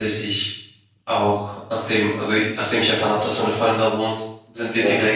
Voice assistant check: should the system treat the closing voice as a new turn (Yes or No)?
No